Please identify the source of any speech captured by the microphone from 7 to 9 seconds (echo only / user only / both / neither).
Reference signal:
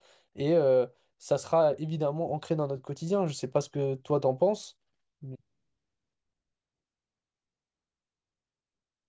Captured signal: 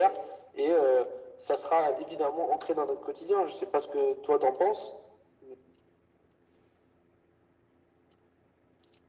neither